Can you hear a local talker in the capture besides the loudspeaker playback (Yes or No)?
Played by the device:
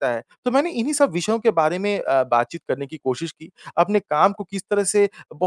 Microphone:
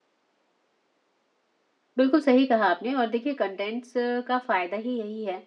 Yes